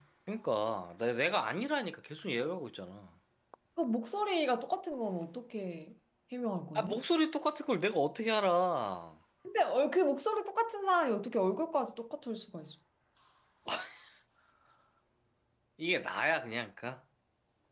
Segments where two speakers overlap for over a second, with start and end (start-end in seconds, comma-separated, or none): none